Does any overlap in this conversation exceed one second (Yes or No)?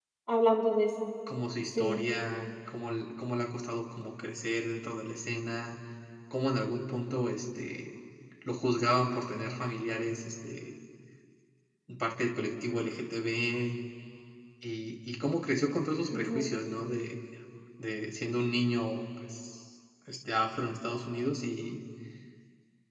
No